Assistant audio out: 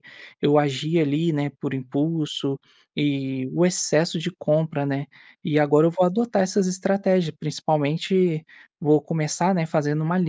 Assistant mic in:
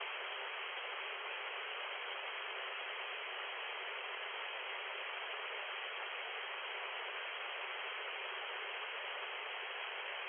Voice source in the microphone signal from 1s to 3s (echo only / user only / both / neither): neither